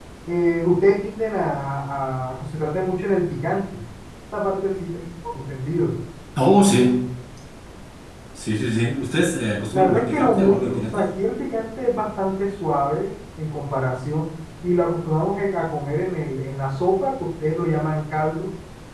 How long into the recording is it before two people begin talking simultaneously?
9.7 s

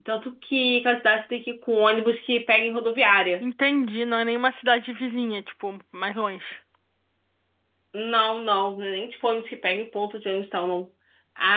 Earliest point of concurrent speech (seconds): none

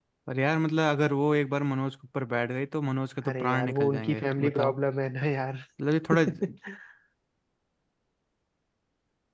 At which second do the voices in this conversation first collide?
3.3 s

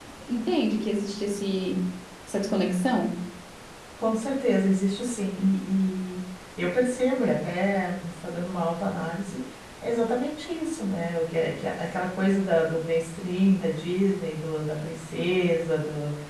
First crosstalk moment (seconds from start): none

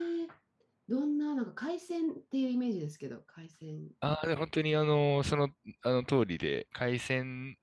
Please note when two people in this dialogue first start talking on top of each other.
none

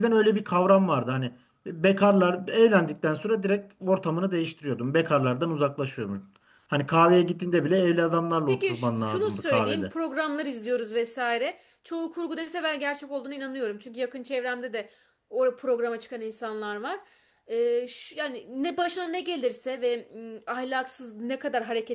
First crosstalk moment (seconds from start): 8.5 s

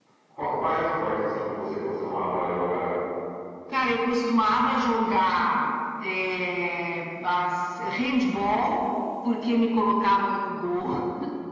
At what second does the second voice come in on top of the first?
none

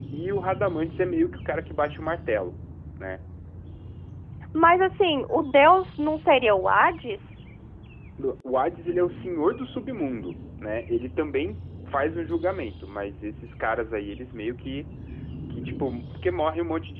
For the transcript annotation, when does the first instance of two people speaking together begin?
none

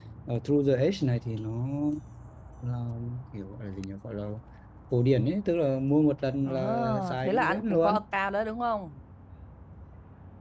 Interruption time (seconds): 6.5 s

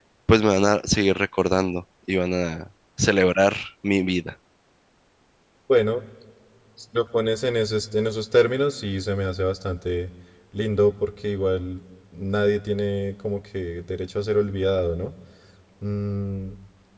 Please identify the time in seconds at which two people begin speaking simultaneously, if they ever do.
none

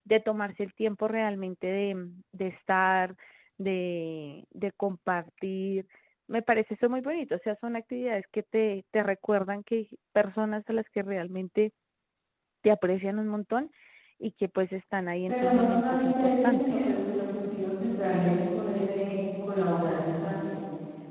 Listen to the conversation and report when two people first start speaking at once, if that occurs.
15.3 s

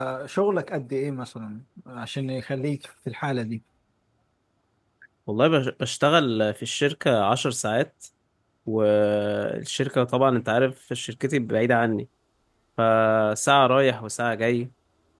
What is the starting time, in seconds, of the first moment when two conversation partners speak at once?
none

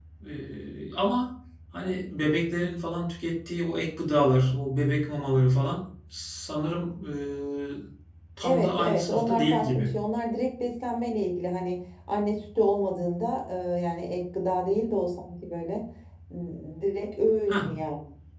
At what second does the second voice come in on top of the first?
8.4 s

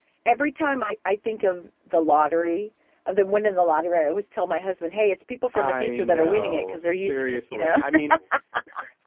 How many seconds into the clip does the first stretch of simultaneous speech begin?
5.5 s

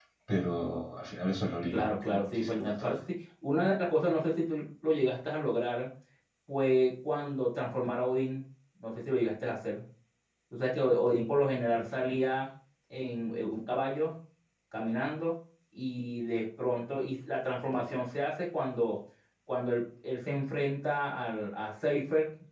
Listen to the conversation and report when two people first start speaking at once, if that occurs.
1.7 s

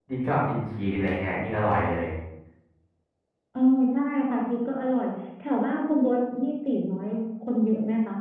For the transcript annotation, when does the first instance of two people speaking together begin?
none

